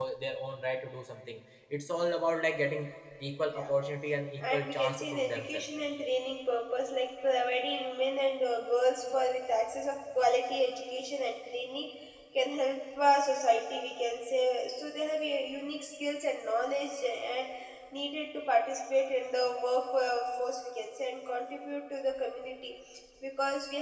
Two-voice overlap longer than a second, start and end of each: 4.4-5.6

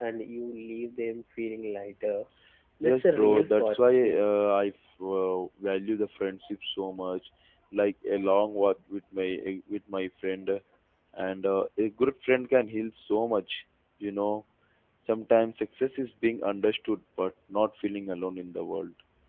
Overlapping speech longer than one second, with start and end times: 2.8-4.2

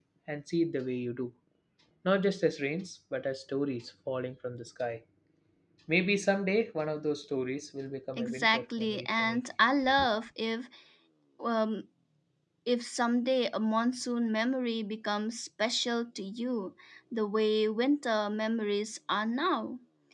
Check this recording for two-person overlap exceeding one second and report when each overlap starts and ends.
8.2-9.4

